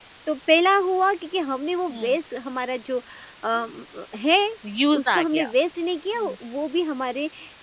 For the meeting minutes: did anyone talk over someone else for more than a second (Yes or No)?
No